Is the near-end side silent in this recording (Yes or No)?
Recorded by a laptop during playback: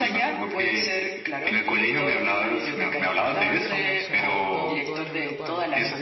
No